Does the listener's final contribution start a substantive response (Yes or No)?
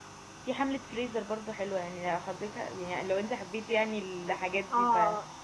Yes